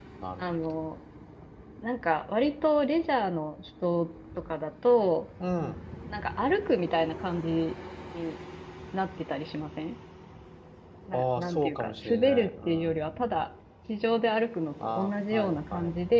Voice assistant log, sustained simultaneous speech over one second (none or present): present